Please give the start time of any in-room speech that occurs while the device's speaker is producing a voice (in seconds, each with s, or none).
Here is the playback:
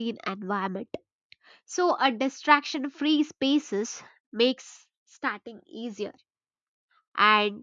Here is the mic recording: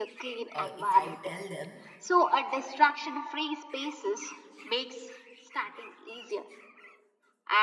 0.5 s